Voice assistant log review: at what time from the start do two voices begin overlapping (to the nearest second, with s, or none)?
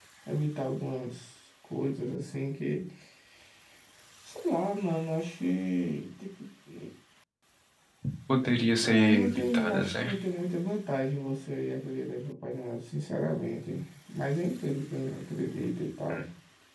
9 s